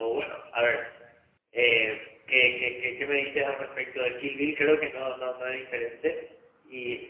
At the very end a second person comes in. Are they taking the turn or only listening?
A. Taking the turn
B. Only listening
B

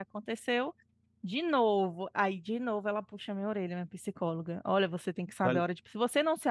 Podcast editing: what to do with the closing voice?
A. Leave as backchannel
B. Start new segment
A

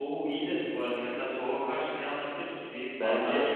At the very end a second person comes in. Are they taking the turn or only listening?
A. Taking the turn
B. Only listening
A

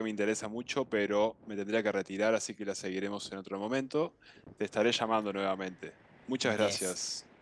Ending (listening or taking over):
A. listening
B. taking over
B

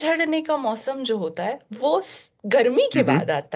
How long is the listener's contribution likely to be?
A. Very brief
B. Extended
A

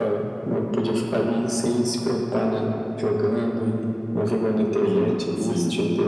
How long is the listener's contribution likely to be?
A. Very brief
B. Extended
B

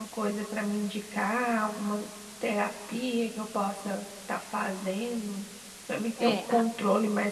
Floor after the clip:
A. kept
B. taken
A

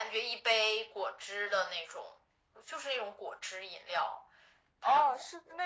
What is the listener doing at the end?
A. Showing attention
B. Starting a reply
B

